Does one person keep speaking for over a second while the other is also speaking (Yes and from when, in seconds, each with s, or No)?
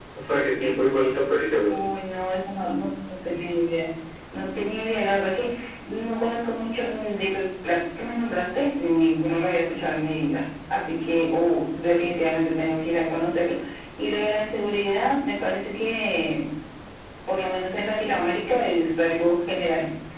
No